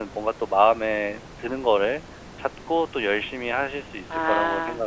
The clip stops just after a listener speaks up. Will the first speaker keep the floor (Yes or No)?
No